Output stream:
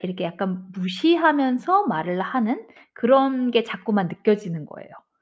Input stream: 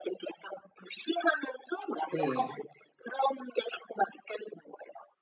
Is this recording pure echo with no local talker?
No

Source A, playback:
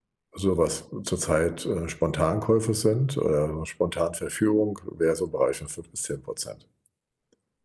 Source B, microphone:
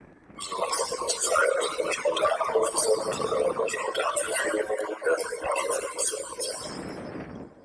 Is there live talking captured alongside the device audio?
No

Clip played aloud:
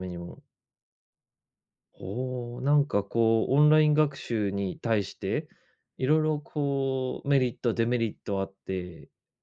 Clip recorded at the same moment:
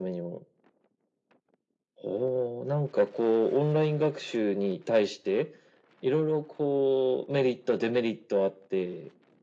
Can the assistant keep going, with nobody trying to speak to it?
Yes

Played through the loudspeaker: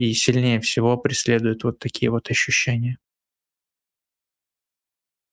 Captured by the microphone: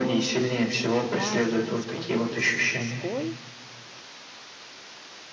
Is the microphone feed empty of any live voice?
No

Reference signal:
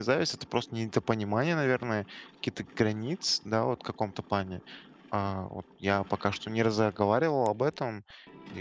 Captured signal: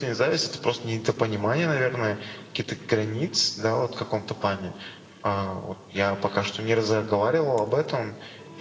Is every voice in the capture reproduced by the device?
Yes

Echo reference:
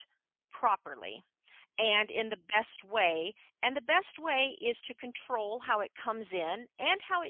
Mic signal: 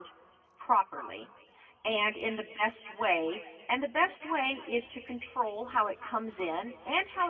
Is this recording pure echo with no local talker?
Yes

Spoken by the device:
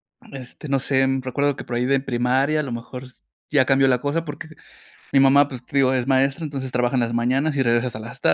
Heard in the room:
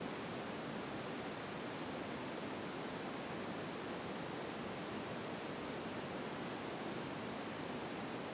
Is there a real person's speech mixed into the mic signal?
No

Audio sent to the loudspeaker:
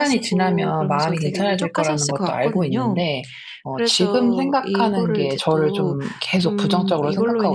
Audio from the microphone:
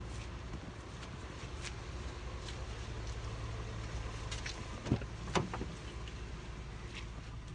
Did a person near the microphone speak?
No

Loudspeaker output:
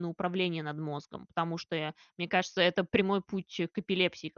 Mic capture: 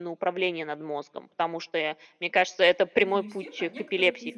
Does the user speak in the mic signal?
Yes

